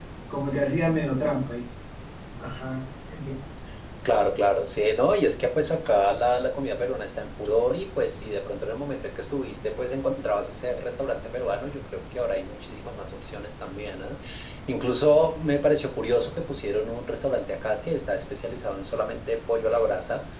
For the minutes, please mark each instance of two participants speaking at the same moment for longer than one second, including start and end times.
none

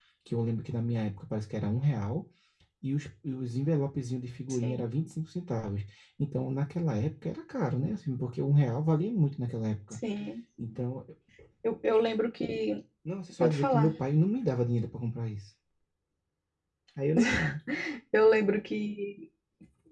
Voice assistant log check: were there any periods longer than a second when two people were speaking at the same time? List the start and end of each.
none

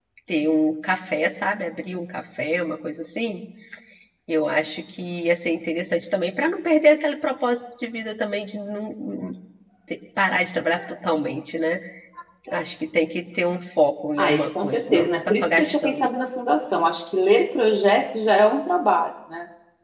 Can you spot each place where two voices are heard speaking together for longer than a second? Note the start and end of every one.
14.2-16.1

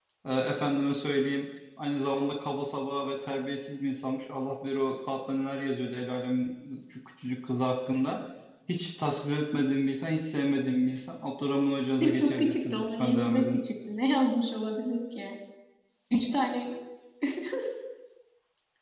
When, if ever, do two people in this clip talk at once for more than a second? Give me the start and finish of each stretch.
12.1-13.6

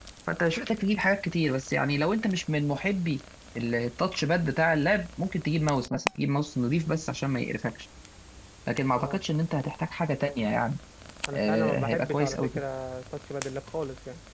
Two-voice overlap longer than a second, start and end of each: 11.3-12.6

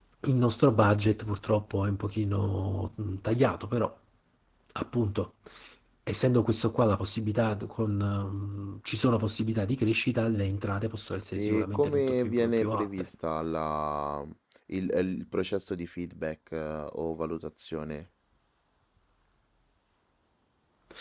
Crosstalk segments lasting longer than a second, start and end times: 11.4-13.1

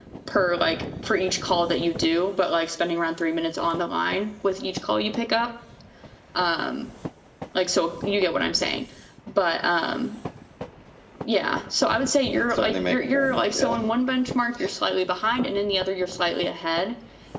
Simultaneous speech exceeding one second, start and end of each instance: 12.3-13.8

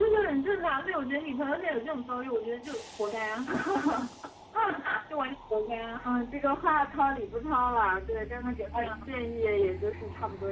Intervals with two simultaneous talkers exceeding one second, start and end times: none

